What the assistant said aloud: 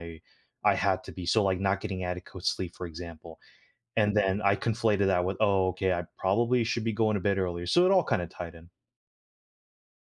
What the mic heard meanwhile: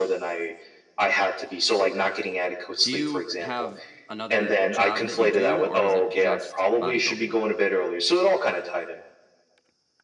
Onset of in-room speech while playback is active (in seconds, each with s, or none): 2.8 s